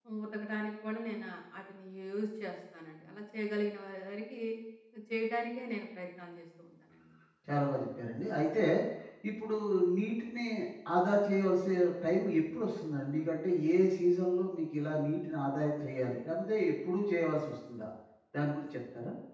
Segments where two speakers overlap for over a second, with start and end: none

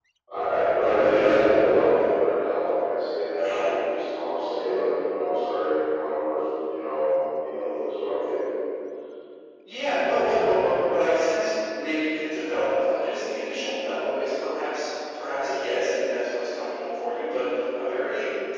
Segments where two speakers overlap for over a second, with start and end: none

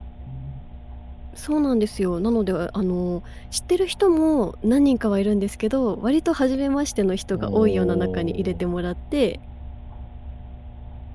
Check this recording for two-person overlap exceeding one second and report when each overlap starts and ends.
7.3-8.6

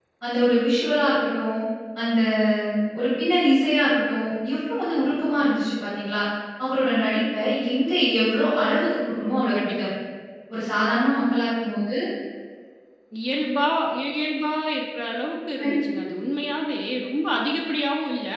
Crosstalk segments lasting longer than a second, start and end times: none

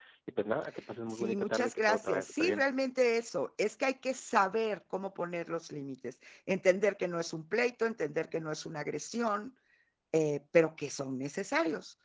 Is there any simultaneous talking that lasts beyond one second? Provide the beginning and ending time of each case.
1.1-2.6

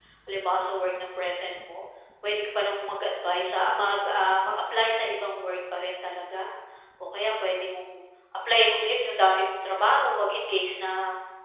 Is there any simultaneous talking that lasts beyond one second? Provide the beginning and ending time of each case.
none

